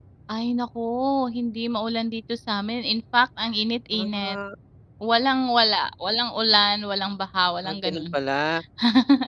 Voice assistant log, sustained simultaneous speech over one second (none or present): none